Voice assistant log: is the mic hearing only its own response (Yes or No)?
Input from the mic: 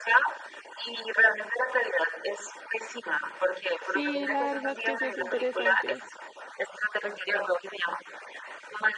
No